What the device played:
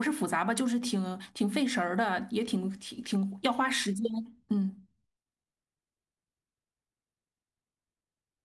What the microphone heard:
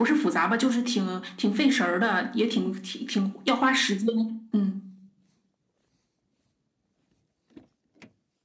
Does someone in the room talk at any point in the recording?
No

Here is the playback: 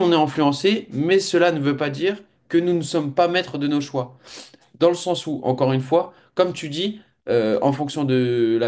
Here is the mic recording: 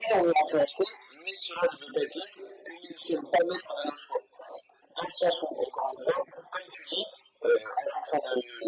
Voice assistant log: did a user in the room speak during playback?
No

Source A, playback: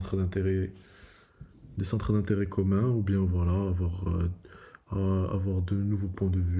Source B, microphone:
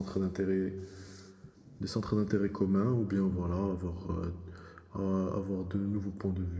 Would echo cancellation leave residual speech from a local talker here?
No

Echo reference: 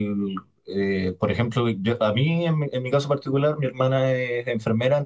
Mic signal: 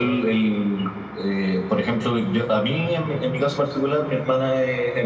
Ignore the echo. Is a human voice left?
No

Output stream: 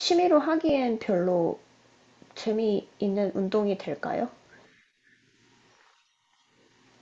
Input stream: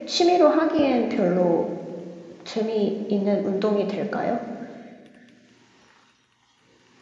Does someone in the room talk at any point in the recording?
No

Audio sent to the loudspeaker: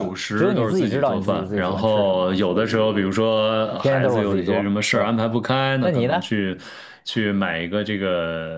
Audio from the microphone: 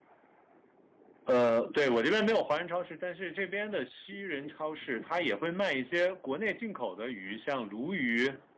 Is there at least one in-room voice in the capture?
Yes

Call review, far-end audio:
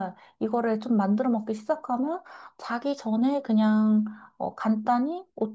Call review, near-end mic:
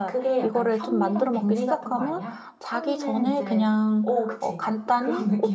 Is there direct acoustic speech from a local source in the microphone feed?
Yes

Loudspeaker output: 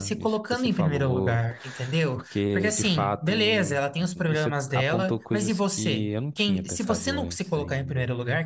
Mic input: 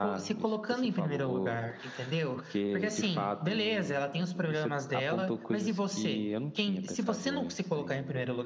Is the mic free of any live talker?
Yes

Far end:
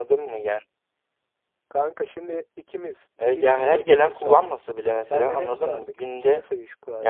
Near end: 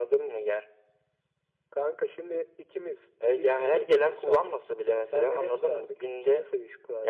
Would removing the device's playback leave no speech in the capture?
Yes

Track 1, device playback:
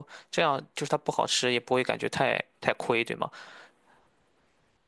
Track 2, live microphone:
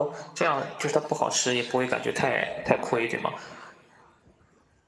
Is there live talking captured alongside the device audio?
No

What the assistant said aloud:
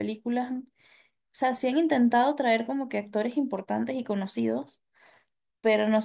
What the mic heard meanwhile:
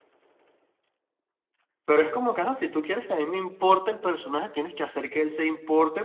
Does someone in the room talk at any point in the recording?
Yes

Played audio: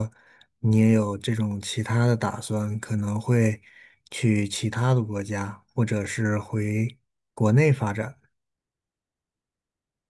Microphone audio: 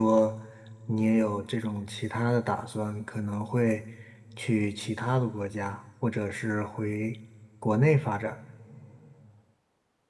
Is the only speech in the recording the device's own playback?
Yes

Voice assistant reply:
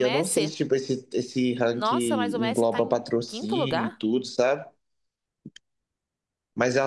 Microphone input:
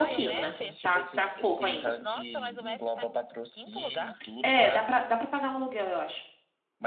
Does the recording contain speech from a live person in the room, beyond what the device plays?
Yes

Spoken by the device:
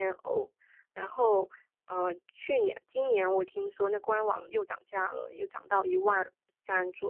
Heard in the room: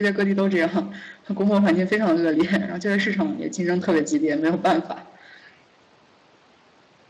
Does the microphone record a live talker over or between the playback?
Yes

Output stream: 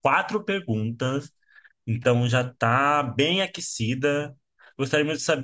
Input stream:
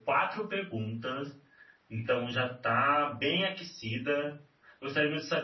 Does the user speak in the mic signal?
No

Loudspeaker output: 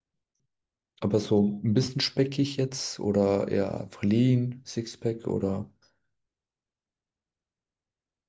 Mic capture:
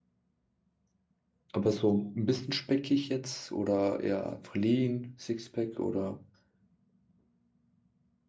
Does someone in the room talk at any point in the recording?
No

